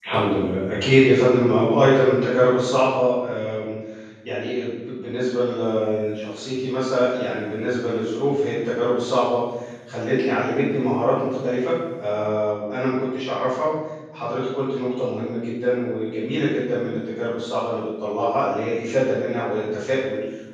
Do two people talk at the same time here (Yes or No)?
No